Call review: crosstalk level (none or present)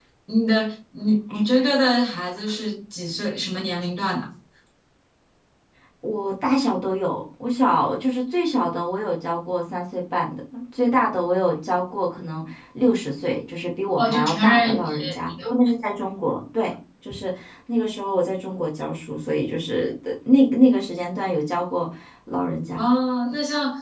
present